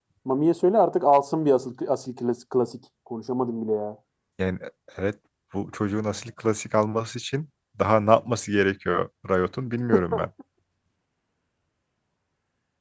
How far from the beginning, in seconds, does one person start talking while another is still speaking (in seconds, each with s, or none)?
none